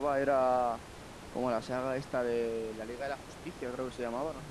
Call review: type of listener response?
taking over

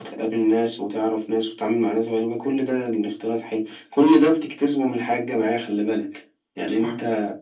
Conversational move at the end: listening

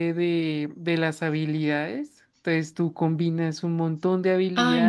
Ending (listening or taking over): taking over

